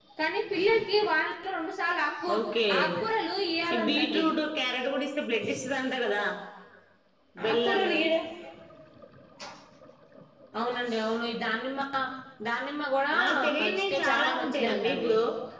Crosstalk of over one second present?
Yes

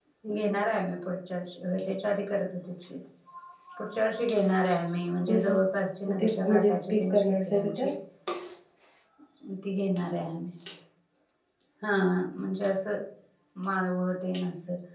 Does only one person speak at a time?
No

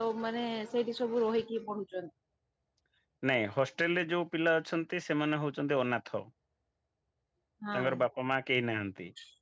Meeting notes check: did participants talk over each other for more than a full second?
No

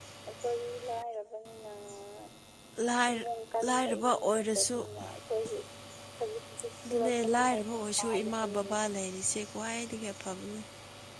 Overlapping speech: Yes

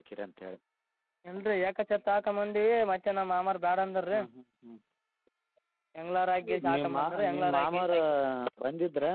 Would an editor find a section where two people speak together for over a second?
Yes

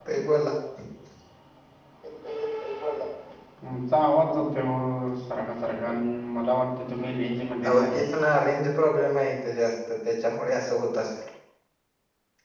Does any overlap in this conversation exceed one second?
No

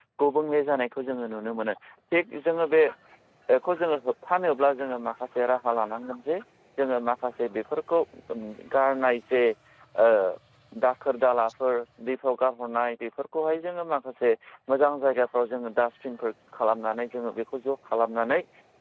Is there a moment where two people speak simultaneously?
No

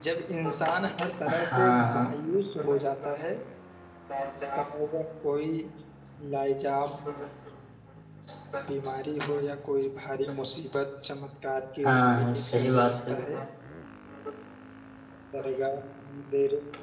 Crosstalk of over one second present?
Yes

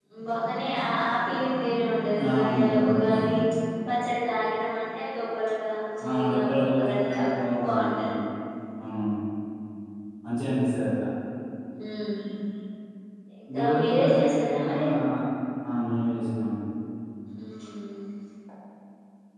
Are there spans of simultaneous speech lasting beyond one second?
Yes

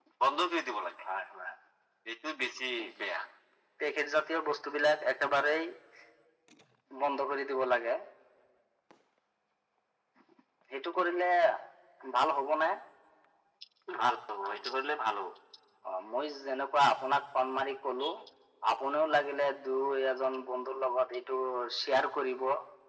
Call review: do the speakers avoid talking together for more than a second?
Yes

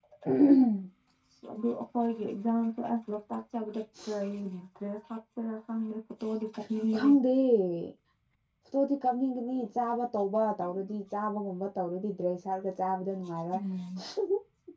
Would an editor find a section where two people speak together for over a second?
No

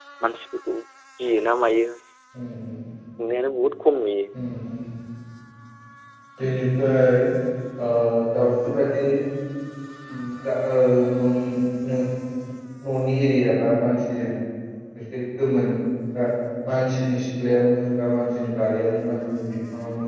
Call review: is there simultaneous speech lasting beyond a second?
No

